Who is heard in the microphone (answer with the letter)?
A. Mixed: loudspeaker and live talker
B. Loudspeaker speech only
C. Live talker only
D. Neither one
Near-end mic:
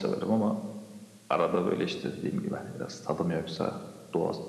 B